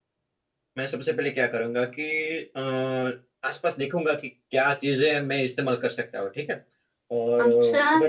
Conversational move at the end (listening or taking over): listening